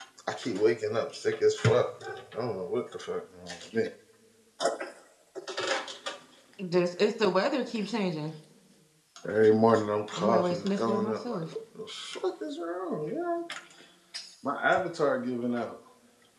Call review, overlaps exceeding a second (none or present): present